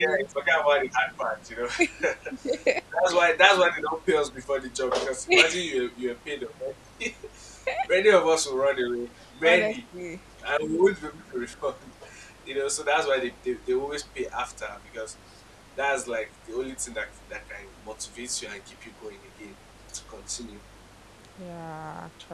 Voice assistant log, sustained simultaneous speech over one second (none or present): none